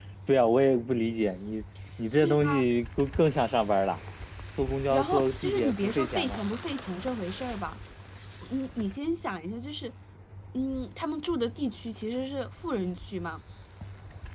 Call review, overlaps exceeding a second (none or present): present